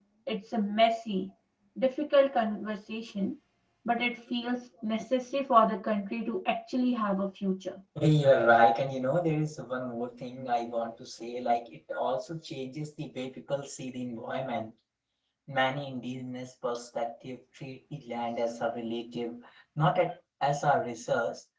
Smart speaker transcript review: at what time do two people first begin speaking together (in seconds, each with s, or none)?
none